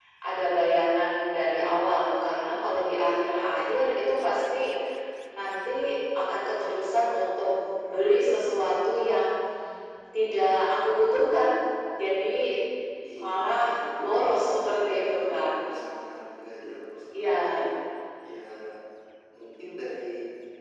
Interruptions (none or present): present